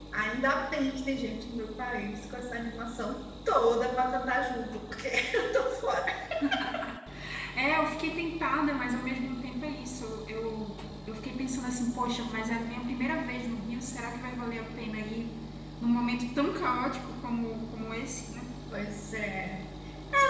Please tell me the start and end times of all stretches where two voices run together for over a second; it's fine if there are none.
none

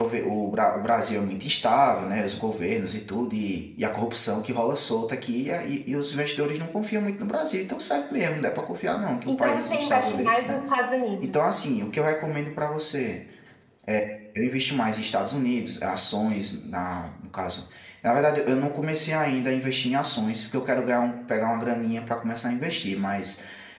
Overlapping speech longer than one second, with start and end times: 9.3-10.6

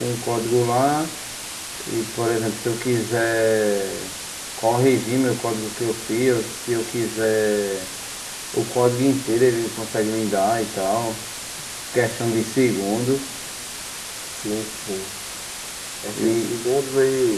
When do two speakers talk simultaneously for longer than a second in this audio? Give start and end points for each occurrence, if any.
none

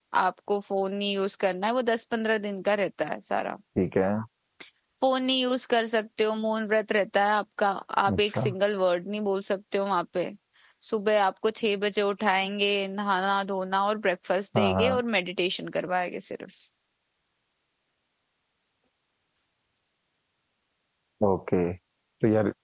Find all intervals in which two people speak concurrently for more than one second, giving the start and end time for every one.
none

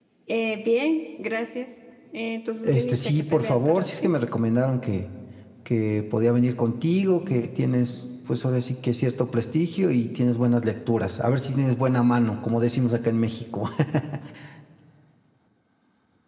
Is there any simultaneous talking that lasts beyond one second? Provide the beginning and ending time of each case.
2.6-4.1

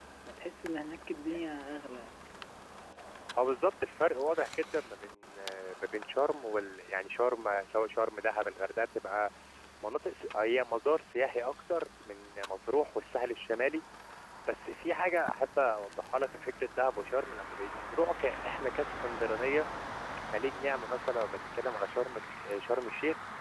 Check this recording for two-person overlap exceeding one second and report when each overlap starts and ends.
none

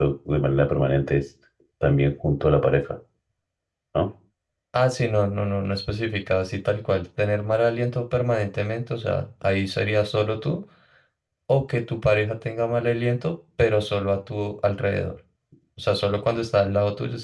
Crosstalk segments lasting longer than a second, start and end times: none

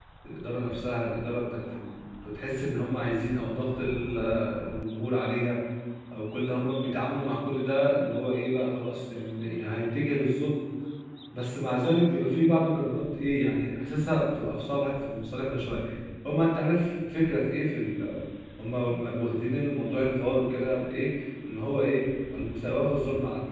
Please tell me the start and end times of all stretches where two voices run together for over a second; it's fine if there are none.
none

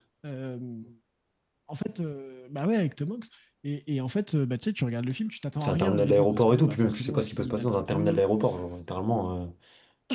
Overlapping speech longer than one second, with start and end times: 5.6-8.2

